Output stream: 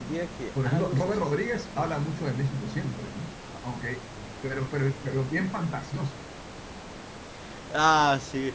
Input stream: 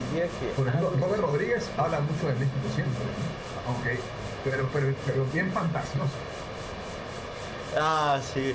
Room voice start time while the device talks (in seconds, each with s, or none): none